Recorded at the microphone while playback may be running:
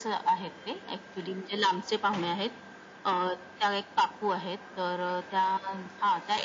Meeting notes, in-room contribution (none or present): none